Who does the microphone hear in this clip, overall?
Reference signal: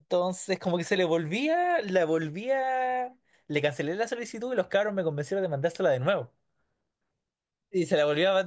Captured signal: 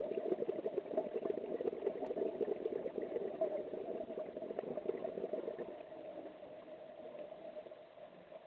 neither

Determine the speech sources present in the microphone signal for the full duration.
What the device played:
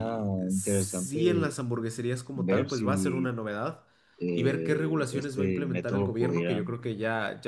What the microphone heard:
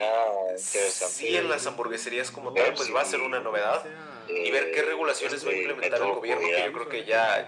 both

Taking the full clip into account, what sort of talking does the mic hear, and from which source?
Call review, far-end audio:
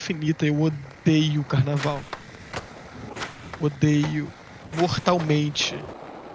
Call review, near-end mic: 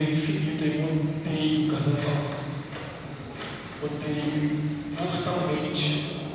echo only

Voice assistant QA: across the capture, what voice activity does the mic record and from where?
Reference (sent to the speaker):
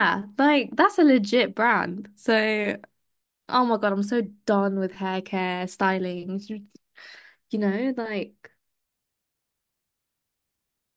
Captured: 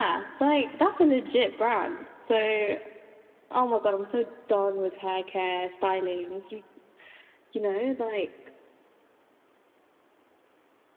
echo only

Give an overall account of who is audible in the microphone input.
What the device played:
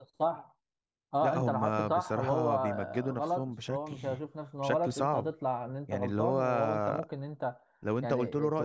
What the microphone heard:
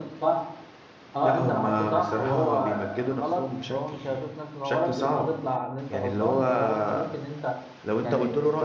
echo only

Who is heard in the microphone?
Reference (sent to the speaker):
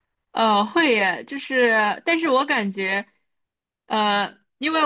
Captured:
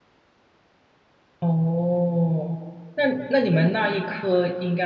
user only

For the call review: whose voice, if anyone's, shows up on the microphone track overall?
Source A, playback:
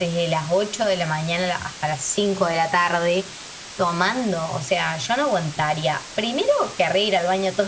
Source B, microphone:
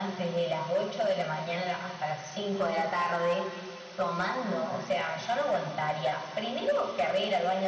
echo only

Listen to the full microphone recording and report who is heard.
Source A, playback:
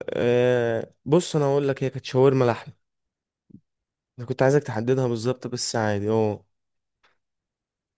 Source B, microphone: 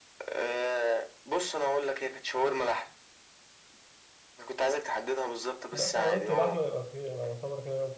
both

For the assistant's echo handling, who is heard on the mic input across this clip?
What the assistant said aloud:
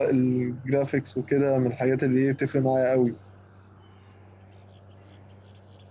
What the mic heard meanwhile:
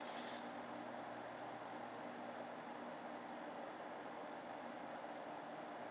neither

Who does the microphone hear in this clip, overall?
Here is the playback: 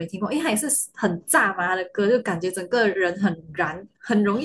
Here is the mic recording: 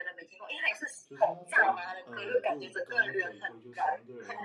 both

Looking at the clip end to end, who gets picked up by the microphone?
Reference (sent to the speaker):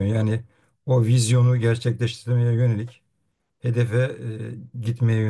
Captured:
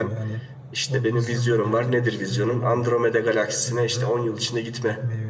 both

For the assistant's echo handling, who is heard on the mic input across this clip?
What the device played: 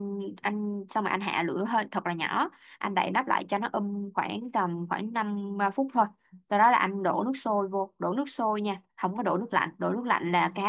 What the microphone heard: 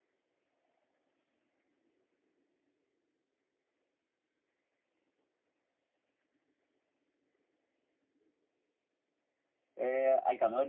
user only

